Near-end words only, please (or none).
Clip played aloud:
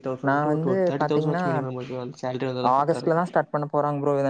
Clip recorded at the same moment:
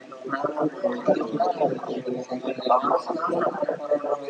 ஓகே ப்ரோ ஓகே ஓகே